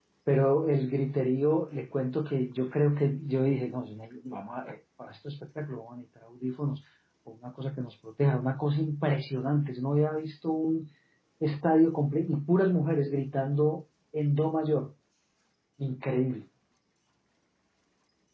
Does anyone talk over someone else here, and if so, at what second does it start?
none

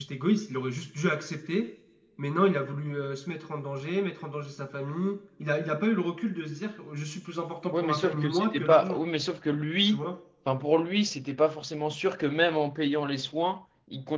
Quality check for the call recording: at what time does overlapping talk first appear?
8 s

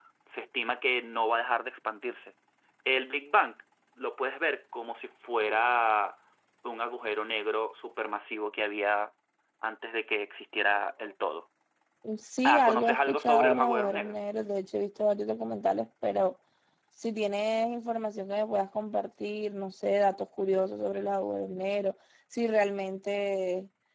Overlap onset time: 12 s

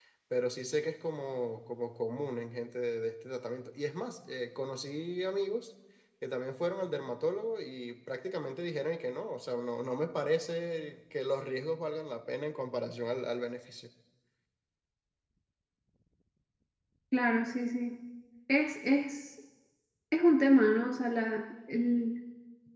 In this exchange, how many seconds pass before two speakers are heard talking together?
none

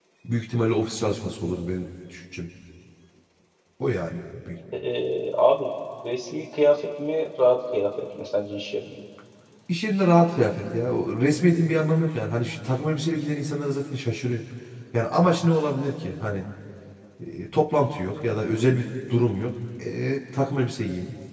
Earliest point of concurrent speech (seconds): none

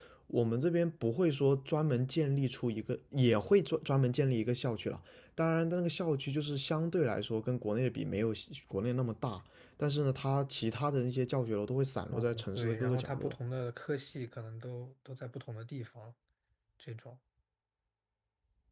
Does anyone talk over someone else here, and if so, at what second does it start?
12 s

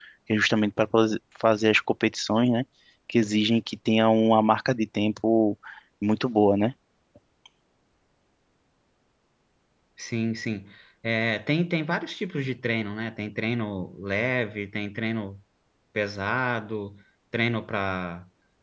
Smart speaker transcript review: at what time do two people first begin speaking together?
none

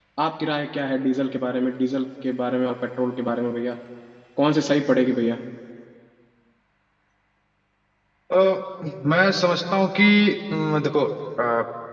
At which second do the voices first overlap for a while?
none

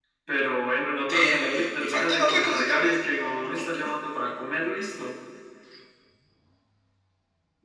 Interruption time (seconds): 1 s

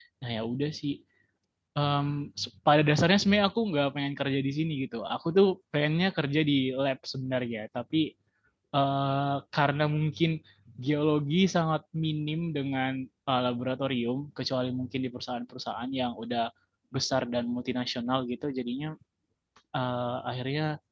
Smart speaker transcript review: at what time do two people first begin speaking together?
none

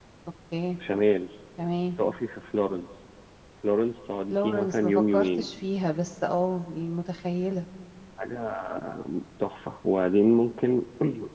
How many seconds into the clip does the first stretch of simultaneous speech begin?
4 s

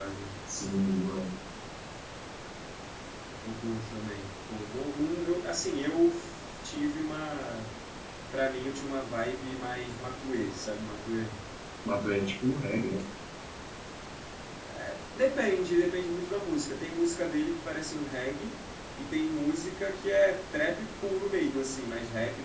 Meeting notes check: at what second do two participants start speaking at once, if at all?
none

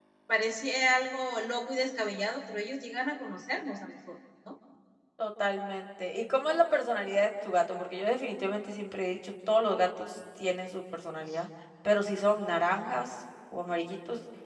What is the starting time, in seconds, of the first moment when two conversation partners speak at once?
none

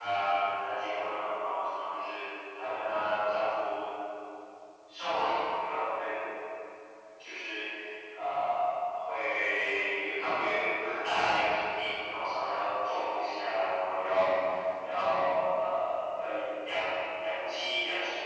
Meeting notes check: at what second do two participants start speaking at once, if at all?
none

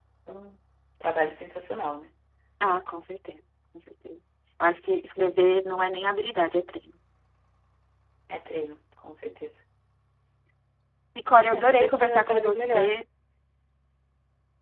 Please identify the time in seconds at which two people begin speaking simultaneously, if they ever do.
12 s

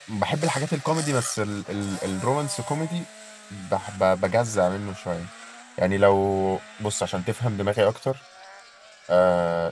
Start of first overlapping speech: none

